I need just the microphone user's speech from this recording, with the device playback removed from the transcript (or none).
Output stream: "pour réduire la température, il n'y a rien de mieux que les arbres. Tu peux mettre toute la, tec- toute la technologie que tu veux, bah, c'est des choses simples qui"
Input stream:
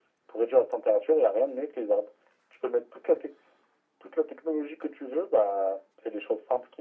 none